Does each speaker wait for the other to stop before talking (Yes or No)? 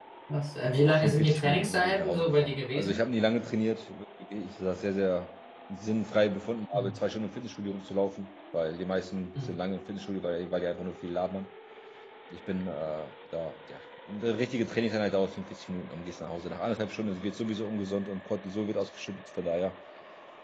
No